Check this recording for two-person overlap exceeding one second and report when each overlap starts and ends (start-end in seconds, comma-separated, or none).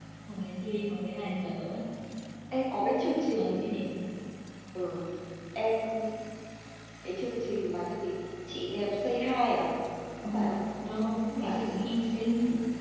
none